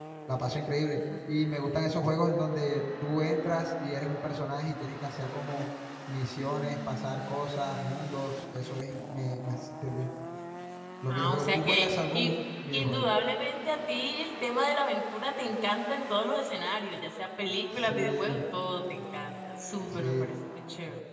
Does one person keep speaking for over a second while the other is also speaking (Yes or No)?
Yes